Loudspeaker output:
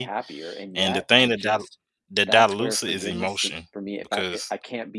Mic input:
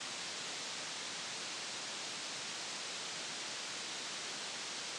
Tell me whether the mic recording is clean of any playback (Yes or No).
Yes